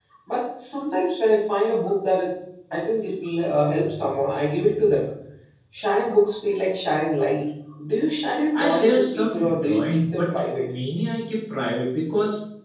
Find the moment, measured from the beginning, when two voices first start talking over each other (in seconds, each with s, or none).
8.5 s